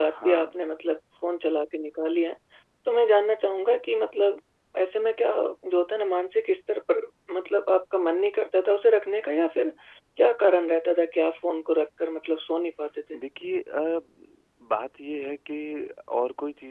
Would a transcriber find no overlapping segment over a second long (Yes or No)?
Yes